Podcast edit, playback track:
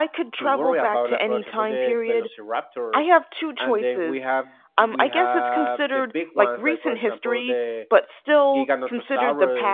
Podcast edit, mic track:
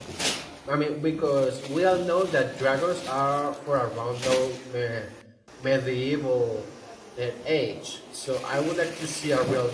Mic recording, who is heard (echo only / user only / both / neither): user only